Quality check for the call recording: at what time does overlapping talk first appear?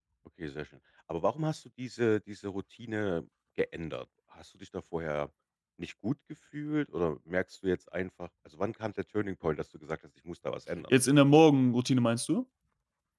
none

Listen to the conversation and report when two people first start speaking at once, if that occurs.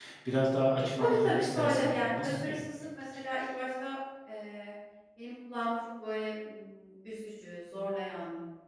1 s

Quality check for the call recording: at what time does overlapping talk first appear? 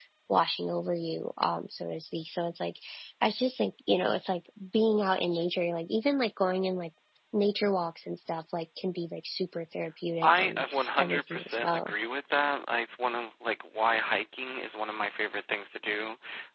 10 s

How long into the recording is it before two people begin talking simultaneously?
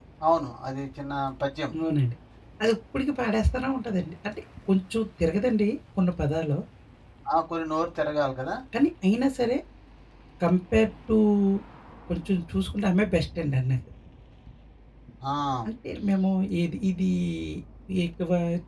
none

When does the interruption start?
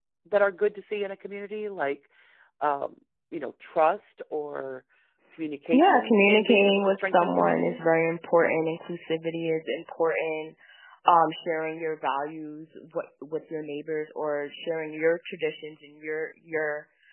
6 s

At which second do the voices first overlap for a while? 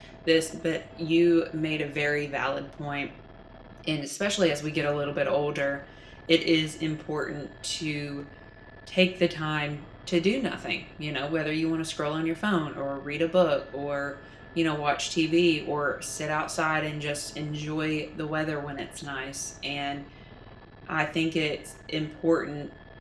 none

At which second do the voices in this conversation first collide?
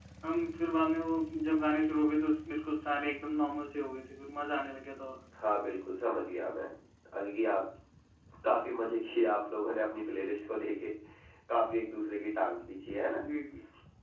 none

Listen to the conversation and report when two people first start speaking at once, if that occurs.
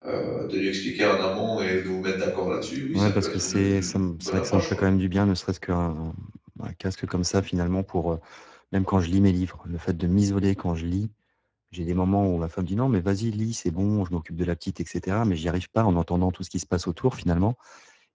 3 s

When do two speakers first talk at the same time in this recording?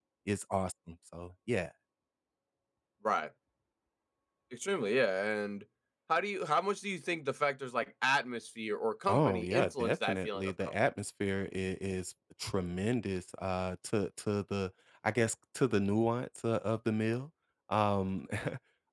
9 s

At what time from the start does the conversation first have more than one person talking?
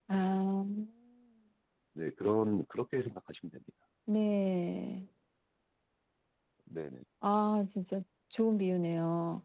none

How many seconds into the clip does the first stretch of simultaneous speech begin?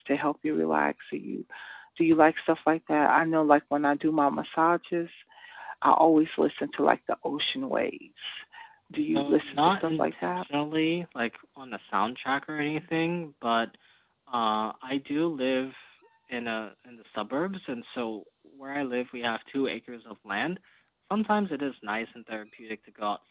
9 s

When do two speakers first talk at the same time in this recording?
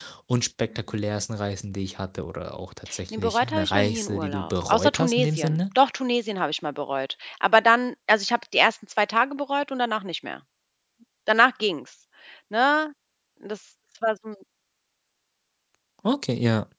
3 s

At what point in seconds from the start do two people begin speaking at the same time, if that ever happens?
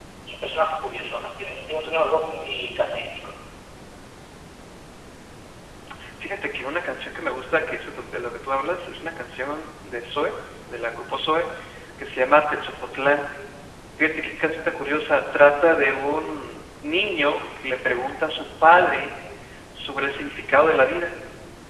none

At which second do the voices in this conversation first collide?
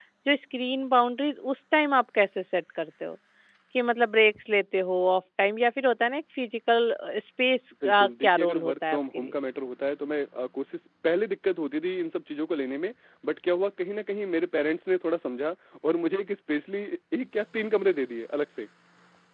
8 s

